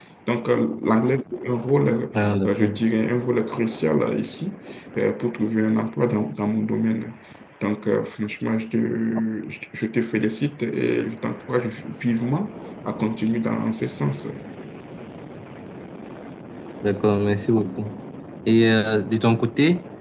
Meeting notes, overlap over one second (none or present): none